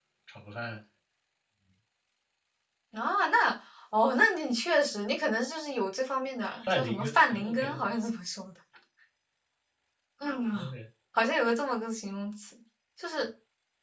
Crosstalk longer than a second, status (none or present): present